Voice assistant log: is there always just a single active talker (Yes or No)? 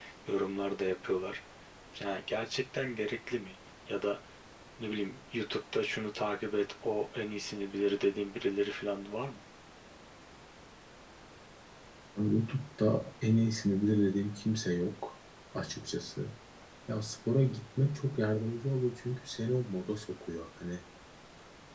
Yes